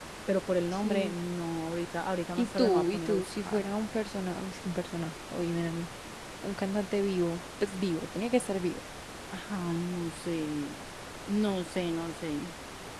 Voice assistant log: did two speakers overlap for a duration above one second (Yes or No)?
Yes